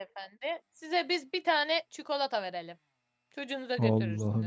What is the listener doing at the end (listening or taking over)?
taking over